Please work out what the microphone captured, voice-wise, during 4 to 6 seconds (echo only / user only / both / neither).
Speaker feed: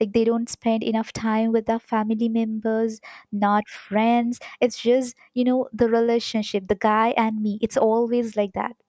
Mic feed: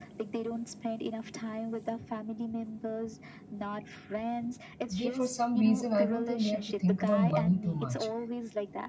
both